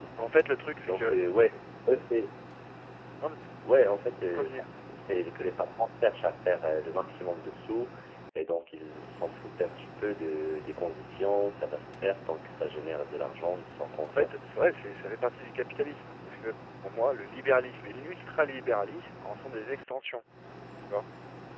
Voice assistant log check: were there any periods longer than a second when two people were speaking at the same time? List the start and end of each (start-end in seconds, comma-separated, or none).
none